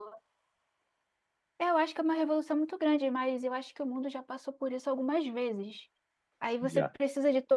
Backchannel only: Yes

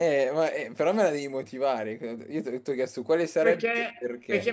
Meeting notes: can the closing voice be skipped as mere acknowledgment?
No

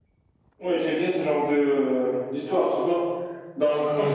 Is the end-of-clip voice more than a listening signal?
No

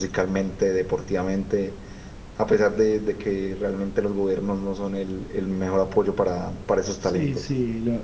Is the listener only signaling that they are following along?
No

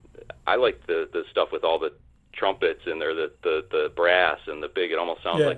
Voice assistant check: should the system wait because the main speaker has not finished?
Yes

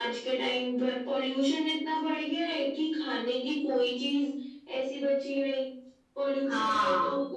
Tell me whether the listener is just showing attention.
Yes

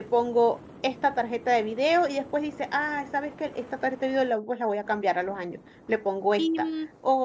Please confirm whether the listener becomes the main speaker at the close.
No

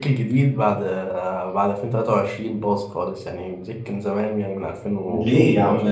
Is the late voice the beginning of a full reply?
Yes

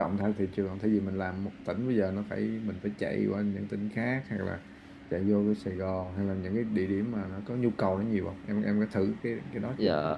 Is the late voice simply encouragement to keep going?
No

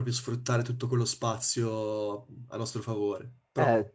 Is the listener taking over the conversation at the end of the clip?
Yes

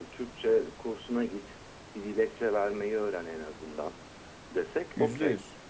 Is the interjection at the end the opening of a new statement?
No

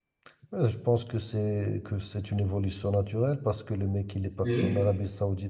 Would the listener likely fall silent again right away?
Yes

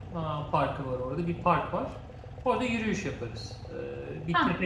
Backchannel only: Yes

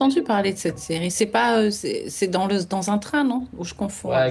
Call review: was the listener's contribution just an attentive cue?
No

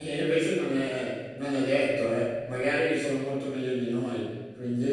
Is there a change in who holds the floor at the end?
Yes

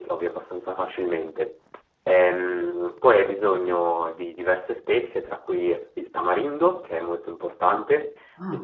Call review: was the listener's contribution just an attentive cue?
Yes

